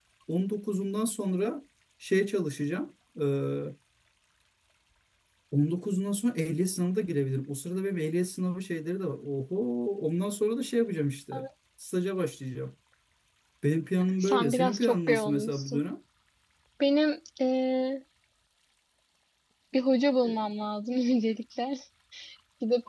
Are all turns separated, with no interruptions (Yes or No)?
No